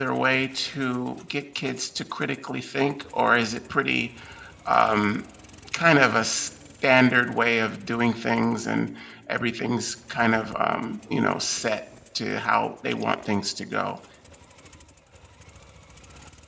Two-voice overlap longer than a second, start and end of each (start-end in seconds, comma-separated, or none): none